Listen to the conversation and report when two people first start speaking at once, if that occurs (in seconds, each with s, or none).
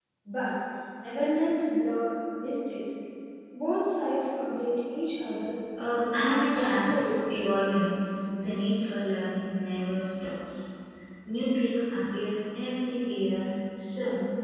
5.8 s